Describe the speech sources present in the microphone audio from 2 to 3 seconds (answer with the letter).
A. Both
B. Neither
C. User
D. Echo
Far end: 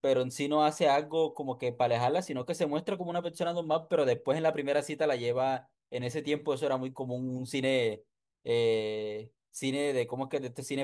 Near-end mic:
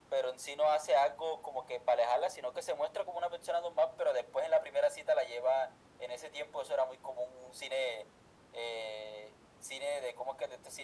D